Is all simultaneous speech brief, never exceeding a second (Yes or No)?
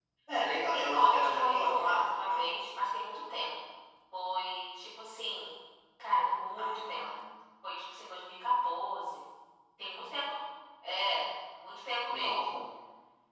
No